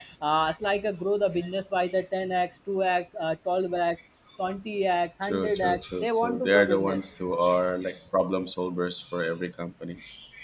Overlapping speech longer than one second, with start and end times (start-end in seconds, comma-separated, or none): 5.2-7.0